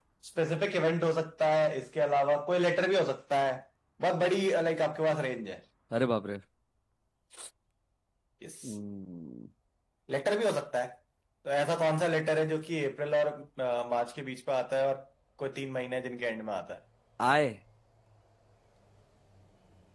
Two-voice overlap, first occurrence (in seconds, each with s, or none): none